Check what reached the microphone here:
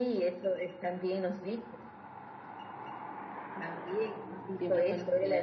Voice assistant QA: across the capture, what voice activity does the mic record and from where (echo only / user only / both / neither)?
both